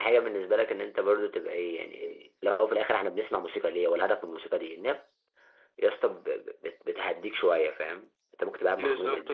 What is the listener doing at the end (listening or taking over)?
taking over